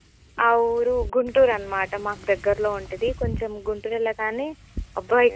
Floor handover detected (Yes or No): No